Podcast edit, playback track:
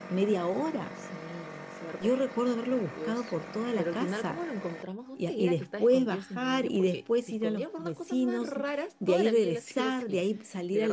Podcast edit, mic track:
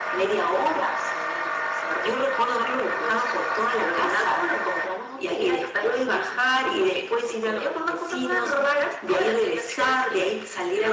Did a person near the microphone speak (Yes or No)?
No